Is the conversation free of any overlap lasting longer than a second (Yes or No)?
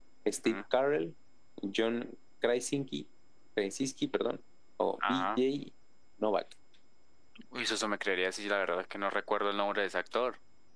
Yes